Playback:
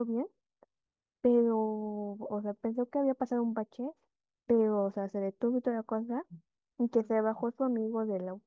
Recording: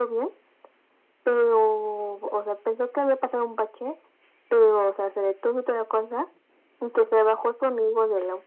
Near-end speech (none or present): none